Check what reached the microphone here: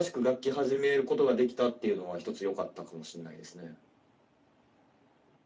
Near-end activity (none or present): none